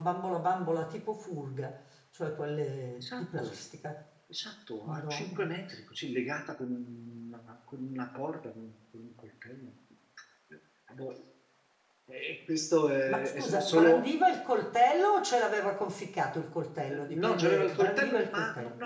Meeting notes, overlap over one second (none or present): present